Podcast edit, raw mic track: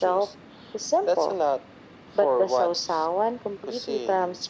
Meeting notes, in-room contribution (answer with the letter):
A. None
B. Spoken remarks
A